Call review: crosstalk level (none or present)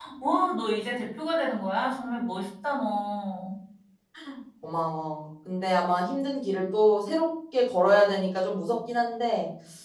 none